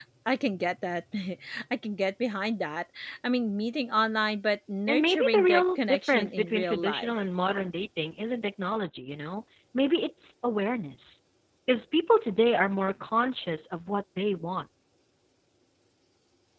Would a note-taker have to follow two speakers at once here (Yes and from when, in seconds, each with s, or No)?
Yes, from 4.9 s